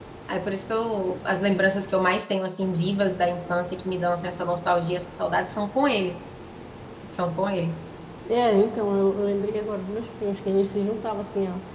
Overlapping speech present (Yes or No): No